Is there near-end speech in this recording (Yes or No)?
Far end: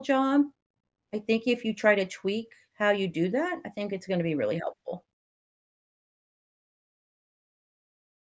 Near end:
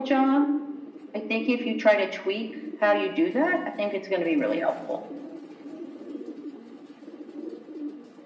No